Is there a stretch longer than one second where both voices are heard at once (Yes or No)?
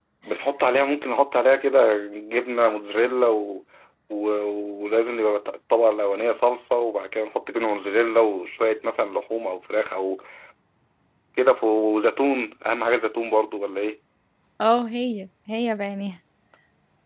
No